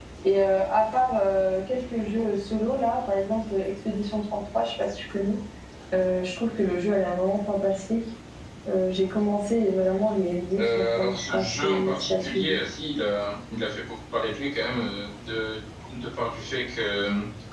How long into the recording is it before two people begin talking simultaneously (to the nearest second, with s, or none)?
11 s